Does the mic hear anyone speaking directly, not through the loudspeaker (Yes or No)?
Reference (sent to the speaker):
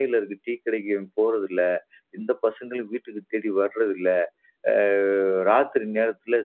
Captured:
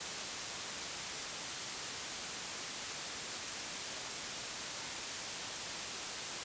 No